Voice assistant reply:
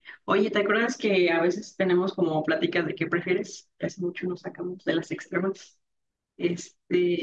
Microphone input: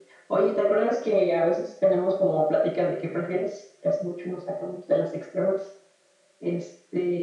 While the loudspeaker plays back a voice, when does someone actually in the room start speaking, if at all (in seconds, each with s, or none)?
none